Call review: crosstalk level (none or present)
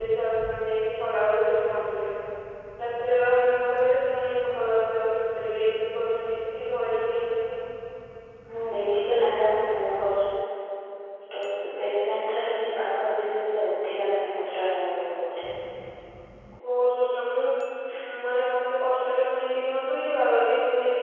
none